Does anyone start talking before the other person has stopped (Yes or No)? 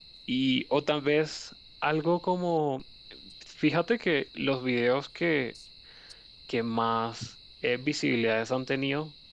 No